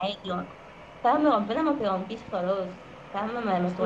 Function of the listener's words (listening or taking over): taking over